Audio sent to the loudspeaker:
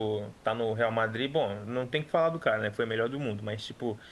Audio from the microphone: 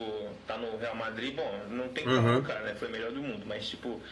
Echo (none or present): present